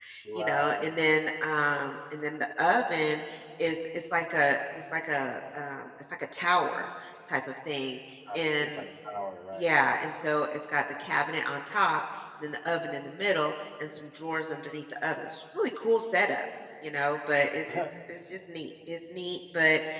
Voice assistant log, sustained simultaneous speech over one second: none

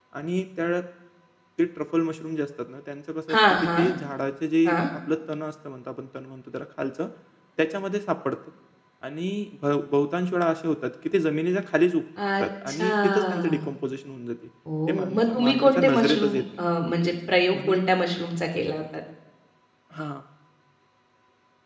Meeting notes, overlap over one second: present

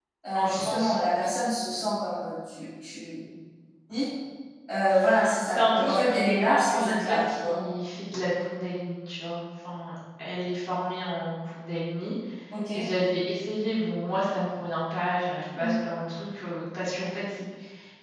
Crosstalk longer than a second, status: present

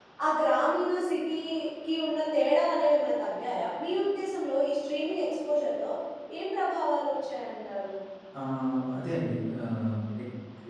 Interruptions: none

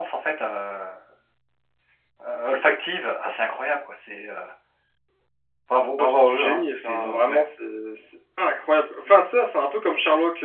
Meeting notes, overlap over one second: present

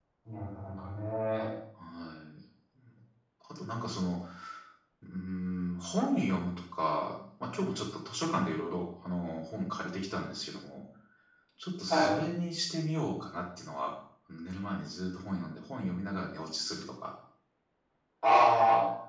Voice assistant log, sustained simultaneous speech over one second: none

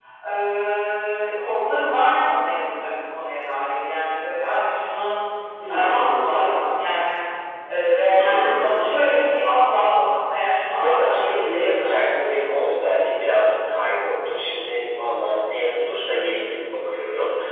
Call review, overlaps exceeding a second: present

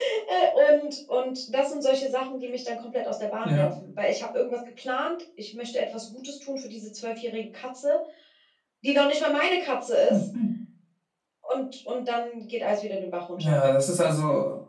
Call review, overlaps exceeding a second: none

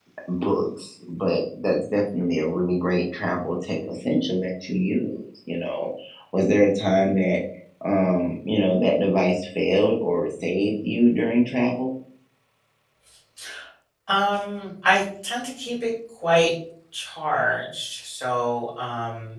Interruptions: none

